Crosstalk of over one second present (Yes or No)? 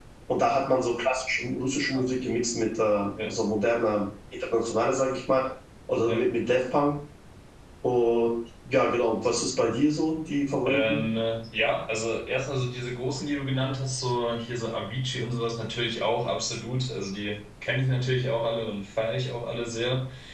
No